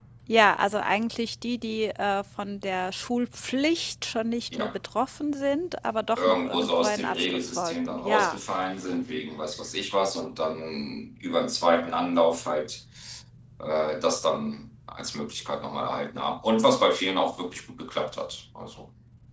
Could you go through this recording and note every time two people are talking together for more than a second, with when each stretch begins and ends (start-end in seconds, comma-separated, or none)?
6.2-8.4